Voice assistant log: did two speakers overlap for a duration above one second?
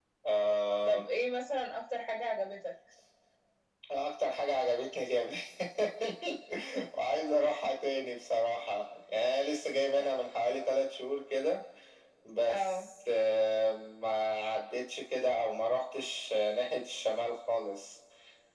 No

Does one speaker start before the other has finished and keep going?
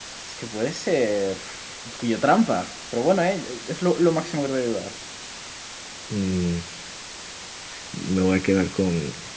No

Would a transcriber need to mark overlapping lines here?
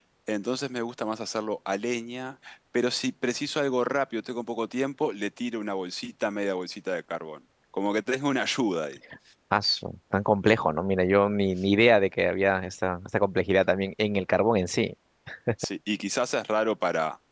No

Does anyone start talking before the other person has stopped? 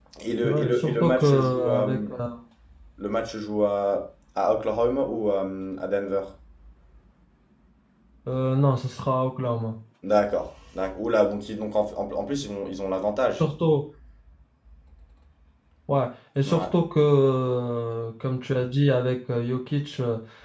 Yes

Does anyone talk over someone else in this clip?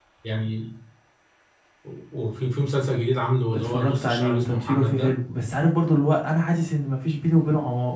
Yes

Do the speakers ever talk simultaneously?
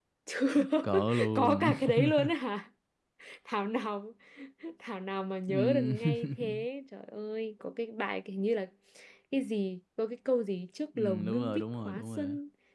Yes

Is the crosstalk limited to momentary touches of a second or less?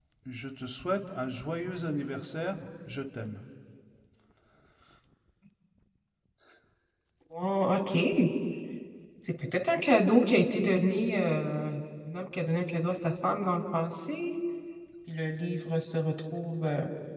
Yes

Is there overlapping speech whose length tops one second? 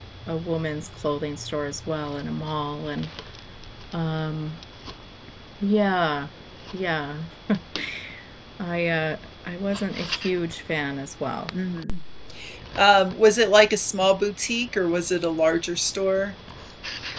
No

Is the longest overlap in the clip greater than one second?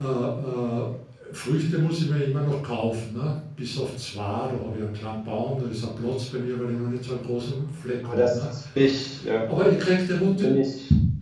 No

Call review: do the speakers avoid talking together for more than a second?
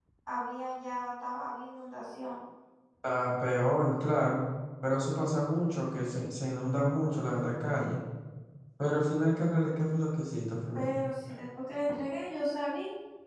Yes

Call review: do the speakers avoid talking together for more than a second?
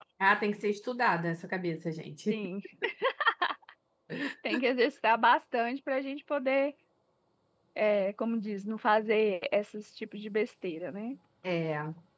Yes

